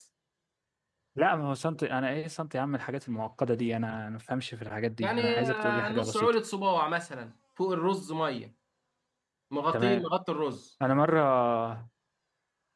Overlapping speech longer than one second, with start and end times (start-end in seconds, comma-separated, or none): 5.0-6.3